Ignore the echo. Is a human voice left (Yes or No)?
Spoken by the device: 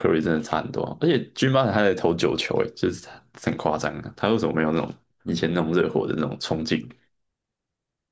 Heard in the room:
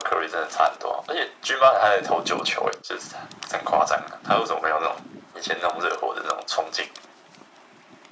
No